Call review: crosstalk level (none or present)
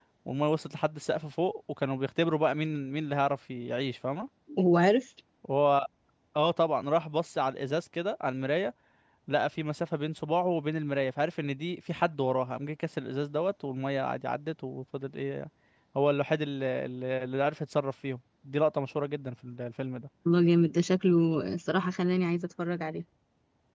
none